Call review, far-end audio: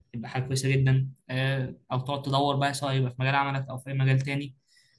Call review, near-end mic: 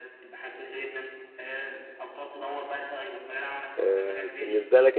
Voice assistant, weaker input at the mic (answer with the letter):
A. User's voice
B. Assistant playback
B